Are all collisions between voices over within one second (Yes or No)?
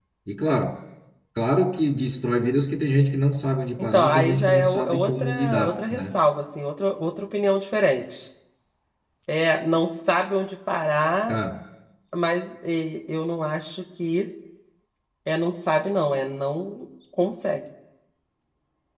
No